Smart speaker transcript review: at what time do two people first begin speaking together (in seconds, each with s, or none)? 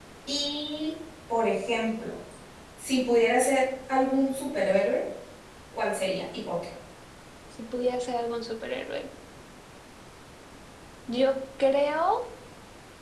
none